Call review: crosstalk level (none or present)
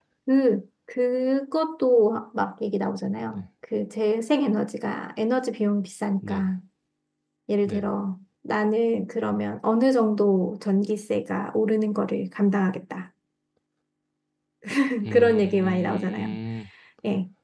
present